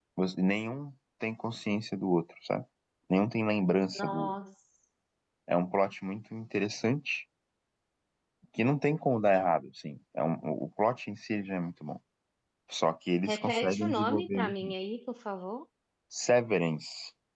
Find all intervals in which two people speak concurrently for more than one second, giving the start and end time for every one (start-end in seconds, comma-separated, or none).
13.3-14.7